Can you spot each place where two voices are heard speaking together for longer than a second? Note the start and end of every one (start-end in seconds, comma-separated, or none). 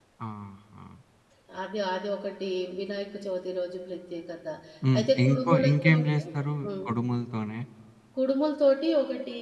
5.0-6.2